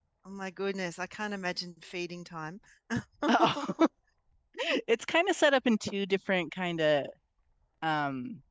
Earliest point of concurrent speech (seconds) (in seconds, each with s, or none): none